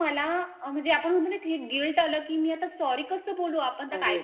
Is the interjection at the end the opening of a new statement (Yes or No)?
Yes